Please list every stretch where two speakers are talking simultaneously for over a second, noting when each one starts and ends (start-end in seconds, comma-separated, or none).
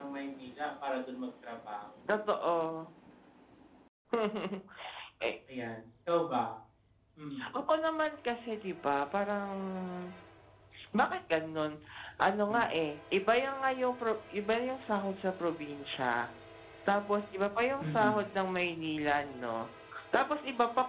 none